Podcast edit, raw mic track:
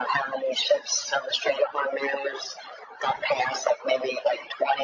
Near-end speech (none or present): none